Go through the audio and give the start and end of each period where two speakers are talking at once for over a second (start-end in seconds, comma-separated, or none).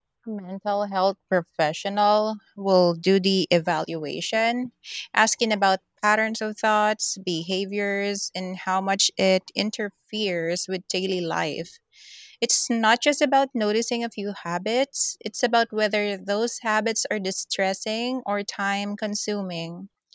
none